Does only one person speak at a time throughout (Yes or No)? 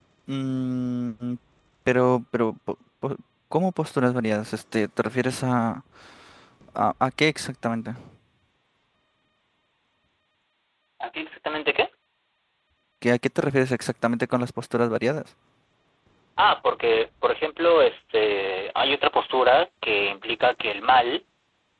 Yes